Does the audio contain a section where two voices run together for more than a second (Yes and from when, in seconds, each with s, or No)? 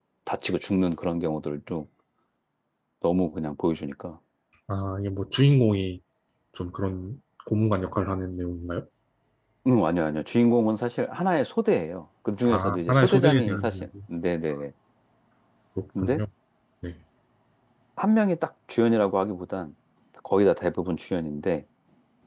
Yes, from 12.5 s